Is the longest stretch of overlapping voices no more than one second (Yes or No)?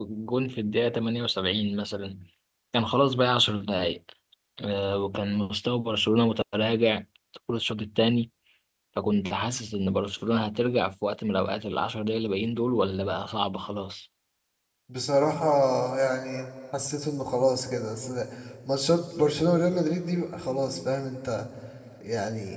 Yes